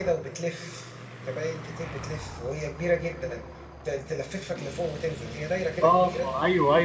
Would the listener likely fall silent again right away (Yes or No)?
No